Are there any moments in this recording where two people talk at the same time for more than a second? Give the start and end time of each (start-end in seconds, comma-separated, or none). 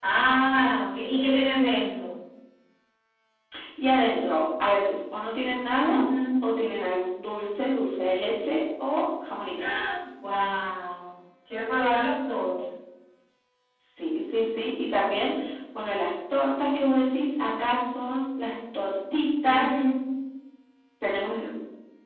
none